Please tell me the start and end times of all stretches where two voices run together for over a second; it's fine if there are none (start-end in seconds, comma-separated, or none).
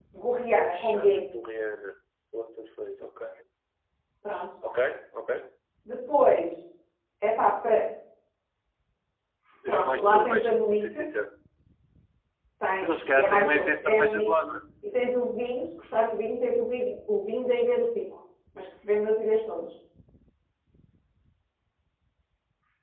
9.7-11.0, 12.8-14.3